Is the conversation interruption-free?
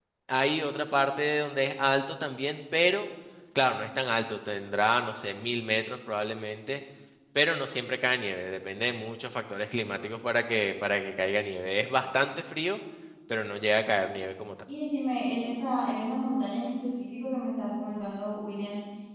Yes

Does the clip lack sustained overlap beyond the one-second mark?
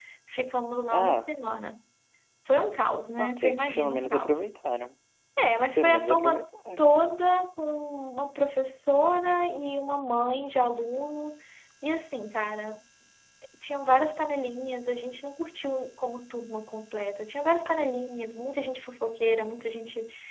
No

